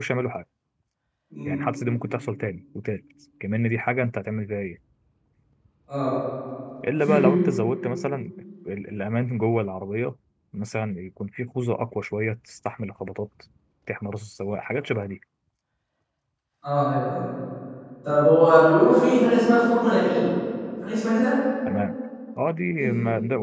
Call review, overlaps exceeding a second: none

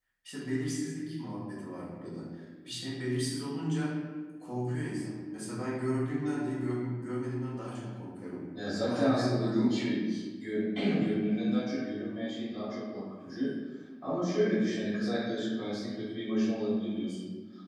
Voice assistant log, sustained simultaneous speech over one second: present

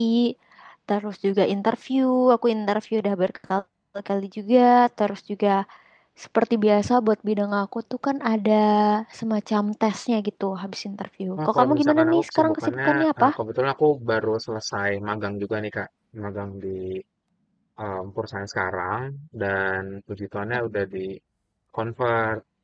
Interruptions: present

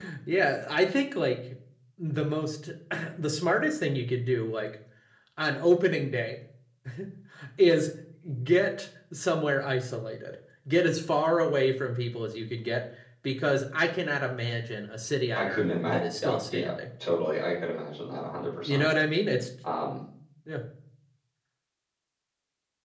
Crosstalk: present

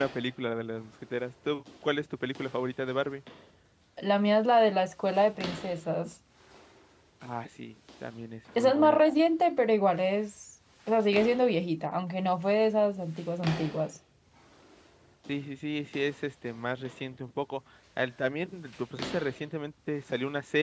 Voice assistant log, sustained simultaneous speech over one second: none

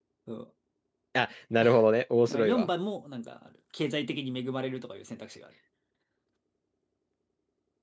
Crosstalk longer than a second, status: none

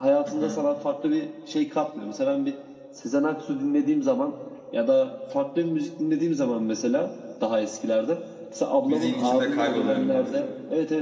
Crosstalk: present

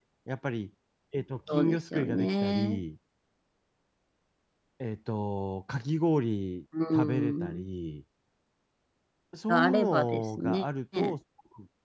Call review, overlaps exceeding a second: present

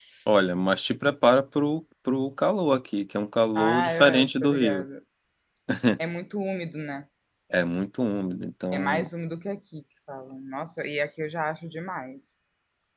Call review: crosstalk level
present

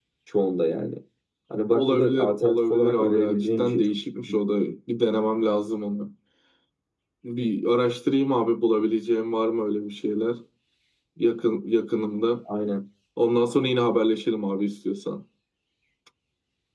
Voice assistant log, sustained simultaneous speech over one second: present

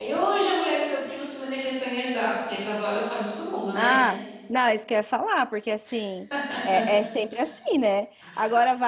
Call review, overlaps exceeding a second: none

